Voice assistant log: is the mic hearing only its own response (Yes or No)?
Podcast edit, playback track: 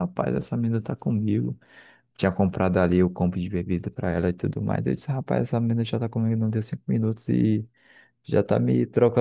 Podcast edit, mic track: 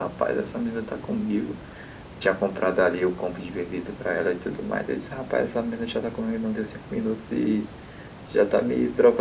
Yes